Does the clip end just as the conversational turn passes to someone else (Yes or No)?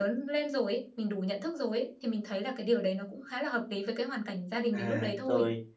Yes